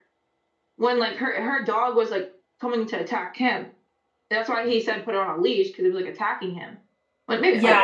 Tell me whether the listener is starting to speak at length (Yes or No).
Yes